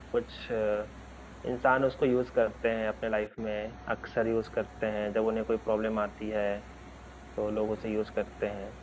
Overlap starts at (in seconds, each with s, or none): none